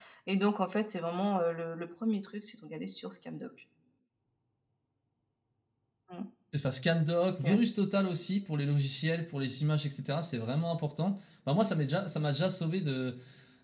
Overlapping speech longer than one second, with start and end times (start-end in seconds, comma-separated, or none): none